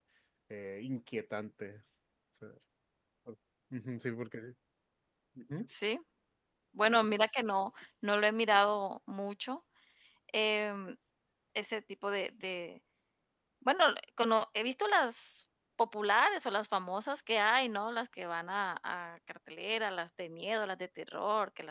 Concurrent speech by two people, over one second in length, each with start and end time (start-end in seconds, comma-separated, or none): none